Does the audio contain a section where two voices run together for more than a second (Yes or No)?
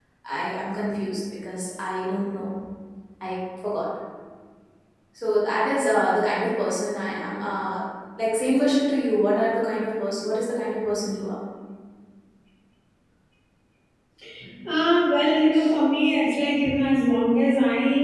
No